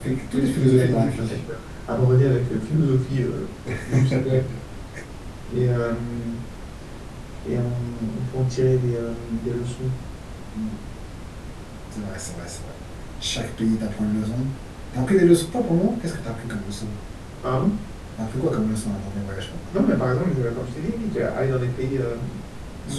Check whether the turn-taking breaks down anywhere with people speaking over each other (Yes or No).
Yes